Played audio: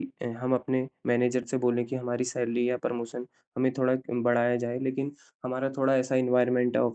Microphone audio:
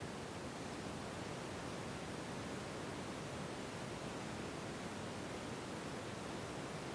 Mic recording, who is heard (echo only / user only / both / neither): neither